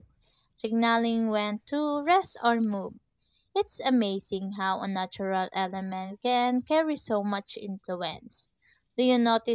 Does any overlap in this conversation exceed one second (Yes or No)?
No